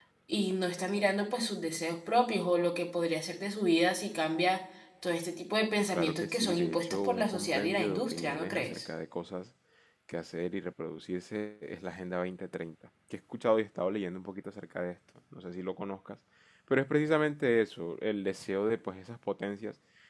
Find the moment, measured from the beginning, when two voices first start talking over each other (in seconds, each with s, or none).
5.9 s